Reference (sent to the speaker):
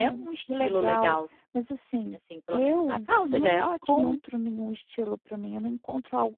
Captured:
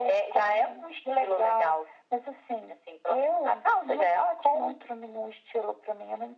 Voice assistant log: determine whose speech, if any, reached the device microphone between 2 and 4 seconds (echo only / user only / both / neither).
echo only